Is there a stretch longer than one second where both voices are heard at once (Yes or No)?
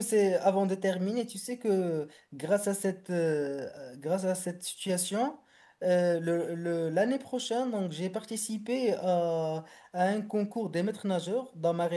No